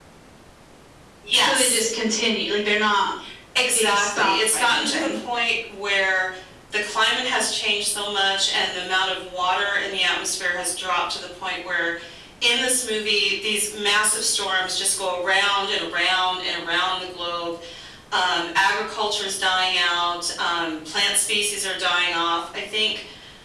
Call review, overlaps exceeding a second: present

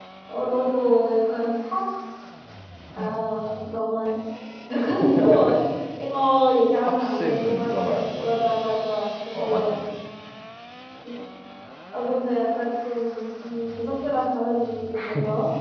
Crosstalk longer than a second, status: present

